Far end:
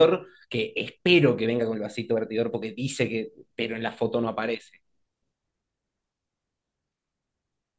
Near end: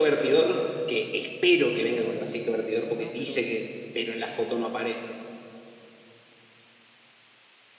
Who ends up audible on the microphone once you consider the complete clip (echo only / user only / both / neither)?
both